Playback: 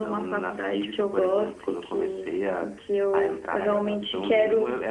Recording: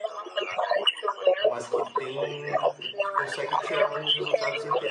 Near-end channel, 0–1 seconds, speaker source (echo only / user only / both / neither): echo only